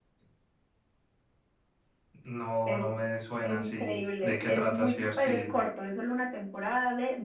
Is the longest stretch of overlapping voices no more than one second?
No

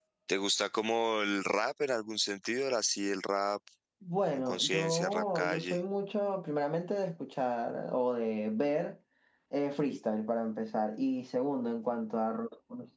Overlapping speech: Yes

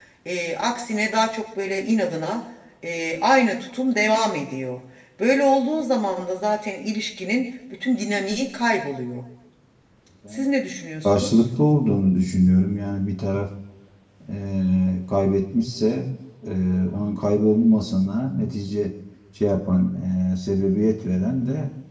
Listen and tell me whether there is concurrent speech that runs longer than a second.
No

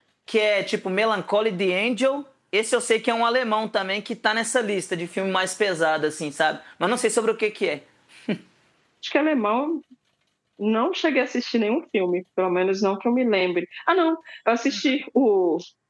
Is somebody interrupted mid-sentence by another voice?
No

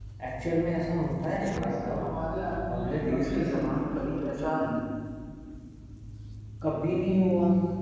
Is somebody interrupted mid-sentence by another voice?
Yes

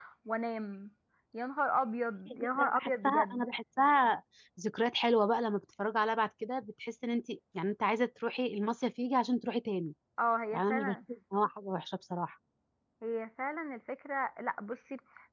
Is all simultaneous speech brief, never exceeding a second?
No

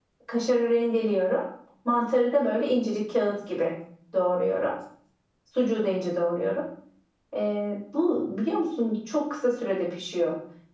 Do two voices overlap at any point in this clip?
No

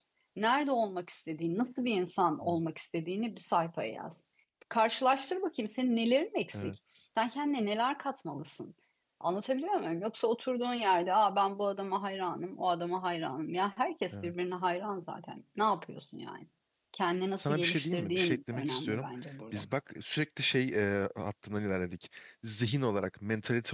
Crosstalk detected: Yes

